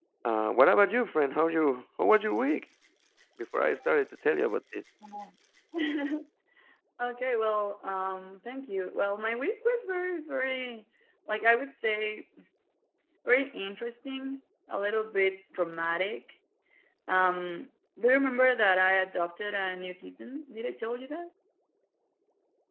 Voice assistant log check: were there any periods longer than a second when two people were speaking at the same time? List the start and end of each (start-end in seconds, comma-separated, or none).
none